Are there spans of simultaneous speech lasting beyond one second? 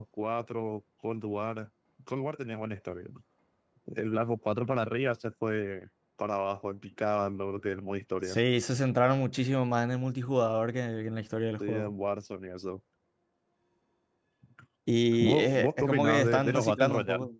Yes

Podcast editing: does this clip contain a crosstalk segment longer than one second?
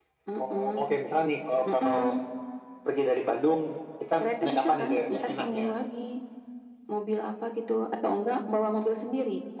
Yes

